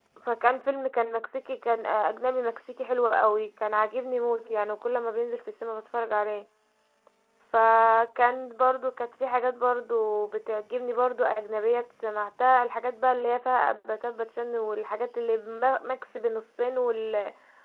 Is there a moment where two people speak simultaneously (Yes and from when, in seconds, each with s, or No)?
No